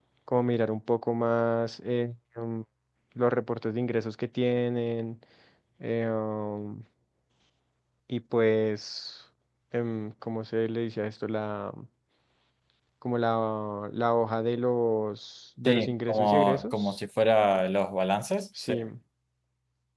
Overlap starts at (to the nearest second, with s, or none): 16 s